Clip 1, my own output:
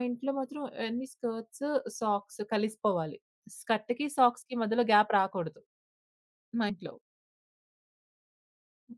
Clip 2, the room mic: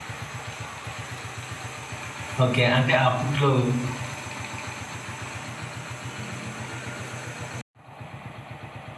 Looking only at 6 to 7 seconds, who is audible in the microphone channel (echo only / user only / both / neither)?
neither